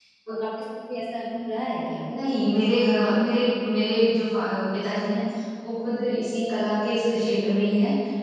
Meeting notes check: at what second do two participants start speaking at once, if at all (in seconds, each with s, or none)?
none